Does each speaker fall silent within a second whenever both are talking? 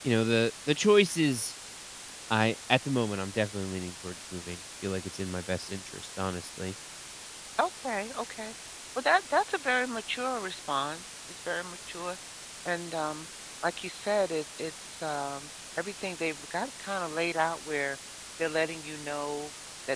Yes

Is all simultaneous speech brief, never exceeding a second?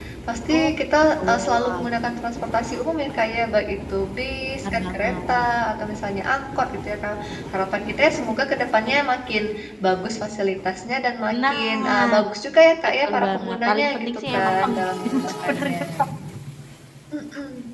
No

